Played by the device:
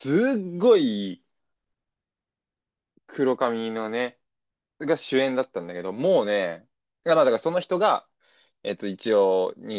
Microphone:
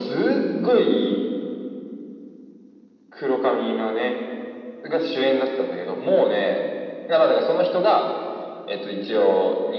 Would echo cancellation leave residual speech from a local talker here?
No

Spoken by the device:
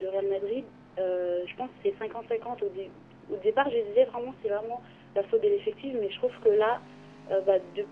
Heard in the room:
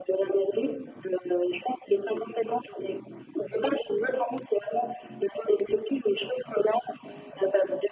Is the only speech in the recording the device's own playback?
Yes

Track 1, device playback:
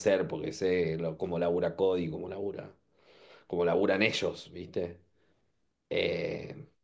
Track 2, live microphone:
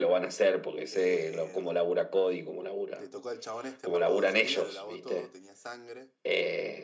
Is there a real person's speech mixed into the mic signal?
Yes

